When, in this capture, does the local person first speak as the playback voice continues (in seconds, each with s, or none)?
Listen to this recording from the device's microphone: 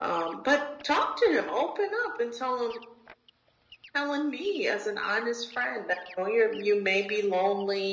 none